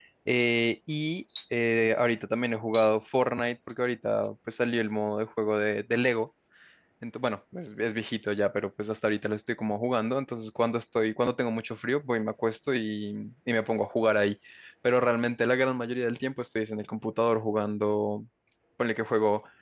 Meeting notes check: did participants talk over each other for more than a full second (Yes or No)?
No